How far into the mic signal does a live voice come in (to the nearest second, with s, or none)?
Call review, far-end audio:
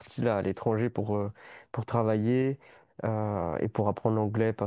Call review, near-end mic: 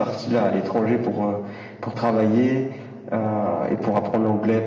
none